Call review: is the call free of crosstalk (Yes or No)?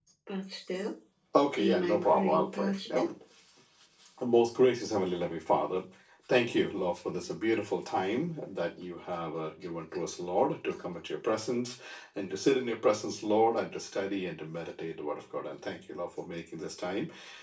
No